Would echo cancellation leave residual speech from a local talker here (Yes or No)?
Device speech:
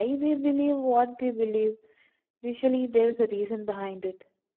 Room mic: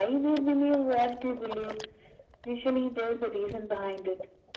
No